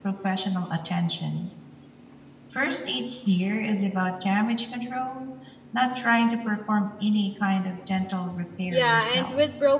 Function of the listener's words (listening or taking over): taking over